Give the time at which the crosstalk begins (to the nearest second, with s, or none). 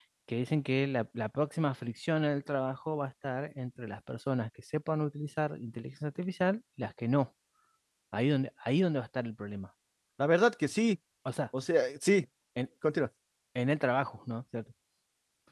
none